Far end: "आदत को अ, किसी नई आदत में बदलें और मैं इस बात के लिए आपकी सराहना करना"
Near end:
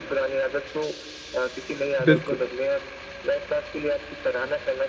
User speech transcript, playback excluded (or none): बिल्कुल।